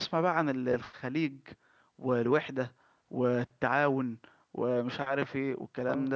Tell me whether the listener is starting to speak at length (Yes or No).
Yes